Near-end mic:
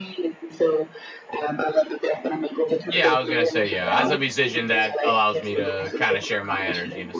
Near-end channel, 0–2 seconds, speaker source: echo only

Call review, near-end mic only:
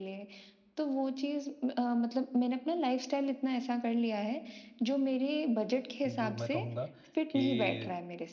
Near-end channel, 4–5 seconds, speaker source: echo only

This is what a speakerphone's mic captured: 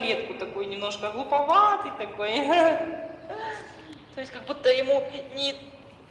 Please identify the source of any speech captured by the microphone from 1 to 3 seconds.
echo only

